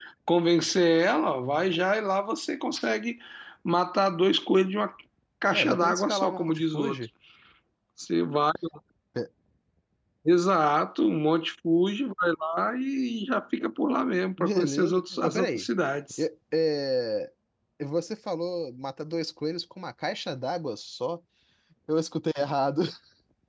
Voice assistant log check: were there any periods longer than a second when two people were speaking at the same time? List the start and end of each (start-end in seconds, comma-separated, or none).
5.5-7.0, 14.4-15.7